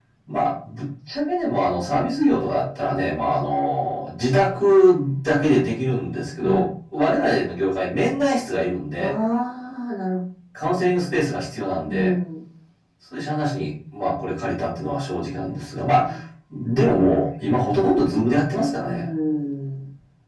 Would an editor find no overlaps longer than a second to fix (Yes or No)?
Yes